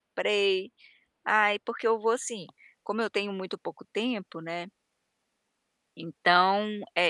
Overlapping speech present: No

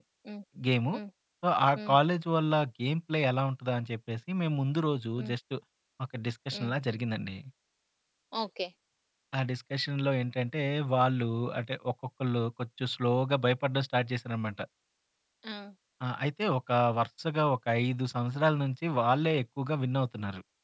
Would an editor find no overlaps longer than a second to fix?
Yes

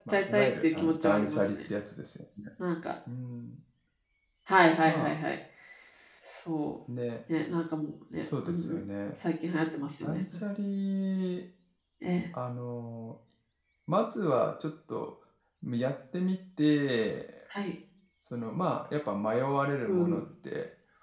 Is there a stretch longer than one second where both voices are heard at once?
Yes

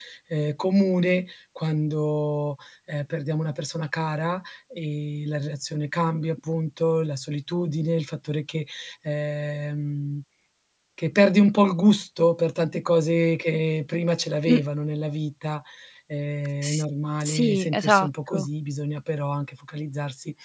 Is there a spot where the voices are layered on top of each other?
Yes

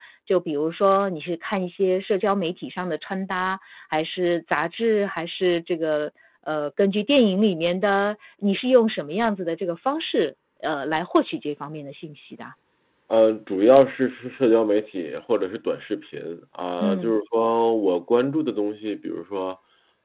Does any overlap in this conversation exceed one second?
No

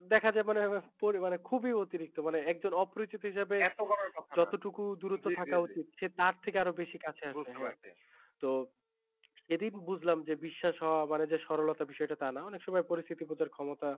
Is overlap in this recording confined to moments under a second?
Yes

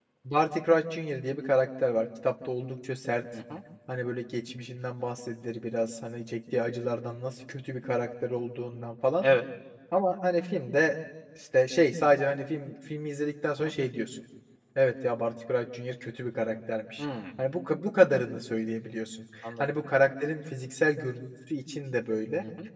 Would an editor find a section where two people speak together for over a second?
No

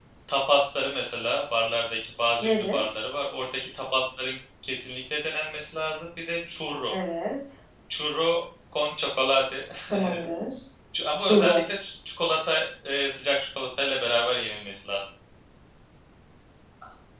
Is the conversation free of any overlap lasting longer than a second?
Yes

